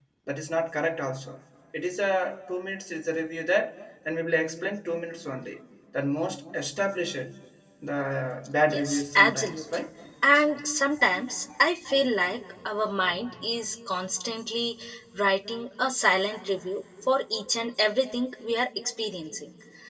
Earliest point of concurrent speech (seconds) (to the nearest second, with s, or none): 9 s